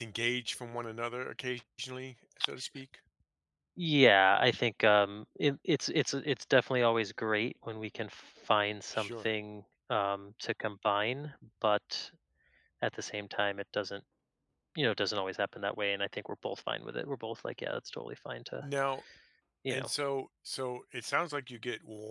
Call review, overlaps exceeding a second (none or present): none